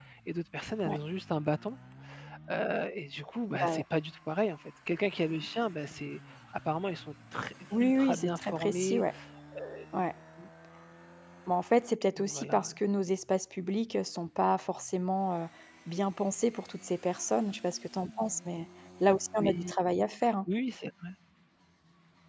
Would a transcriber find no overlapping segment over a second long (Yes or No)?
No